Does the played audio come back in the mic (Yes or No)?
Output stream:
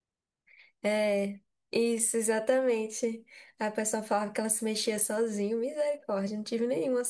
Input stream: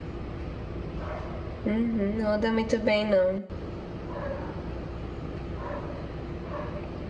No